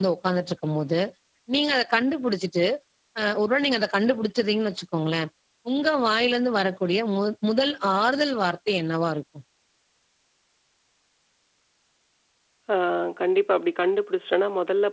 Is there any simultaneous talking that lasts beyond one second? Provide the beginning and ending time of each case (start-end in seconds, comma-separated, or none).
none